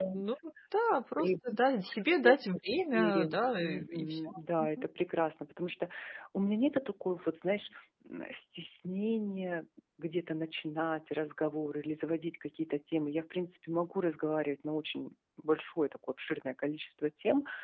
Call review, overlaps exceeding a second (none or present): present